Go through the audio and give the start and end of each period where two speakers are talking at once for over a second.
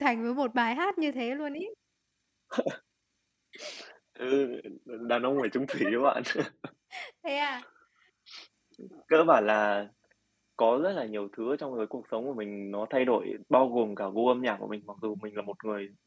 none

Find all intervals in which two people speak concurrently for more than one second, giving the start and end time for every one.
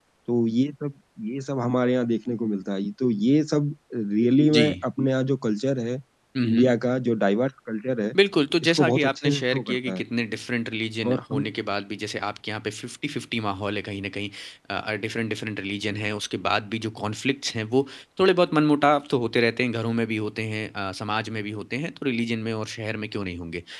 8.6-10.0

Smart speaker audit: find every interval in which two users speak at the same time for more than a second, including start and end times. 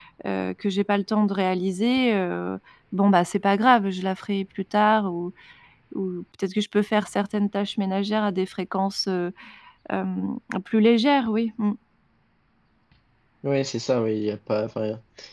none

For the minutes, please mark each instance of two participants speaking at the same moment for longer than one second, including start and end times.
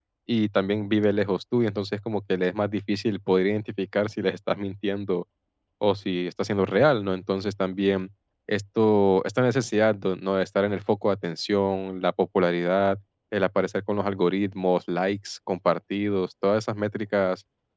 none

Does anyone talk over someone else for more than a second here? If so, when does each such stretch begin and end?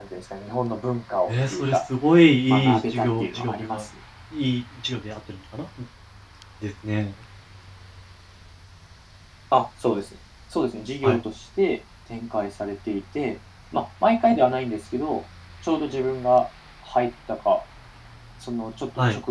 2.5-3.8

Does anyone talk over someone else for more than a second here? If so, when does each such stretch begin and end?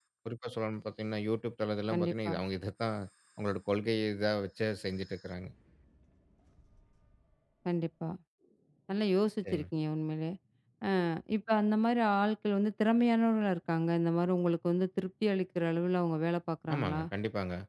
none

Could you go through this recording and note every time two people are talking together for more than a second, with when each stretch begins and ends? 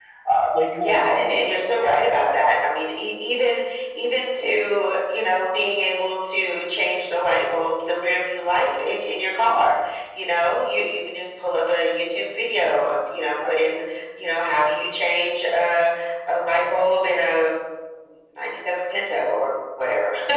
0.8-2.6

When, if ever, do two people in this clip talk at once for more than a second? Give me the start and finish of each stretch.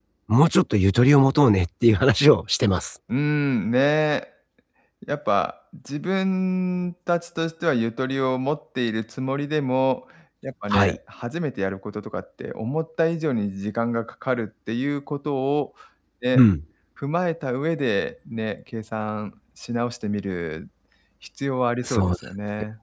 none

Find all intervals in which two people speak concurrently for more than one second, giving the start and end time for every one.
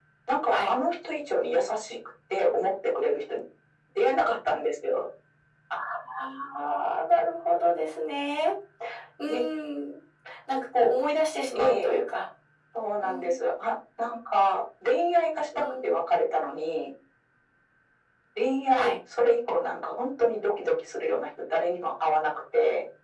none

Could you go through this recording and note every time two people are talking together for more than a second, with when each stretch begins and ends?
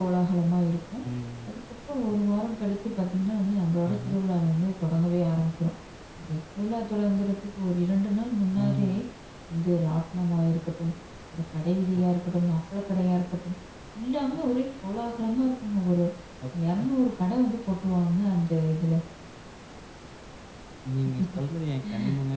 none

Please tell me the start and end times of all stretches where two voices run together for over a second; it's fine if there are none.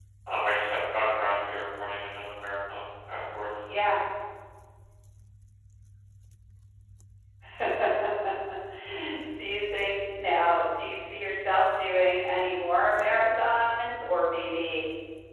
none

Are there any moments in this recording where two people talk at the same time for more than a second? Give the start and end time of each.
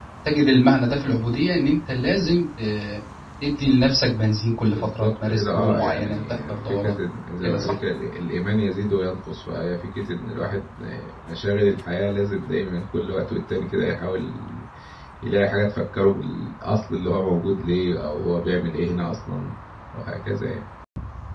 4.8-7.0

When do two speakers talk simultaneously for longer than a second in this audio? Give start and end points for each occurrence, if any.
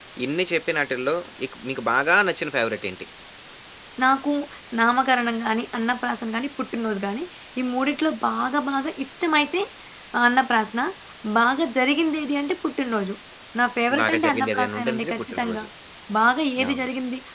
14.0-15.6

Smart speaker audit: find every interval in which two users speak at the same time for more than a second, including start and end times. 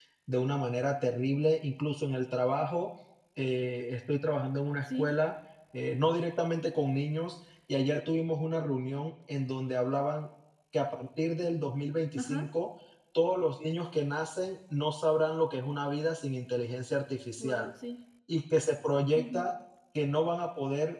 none

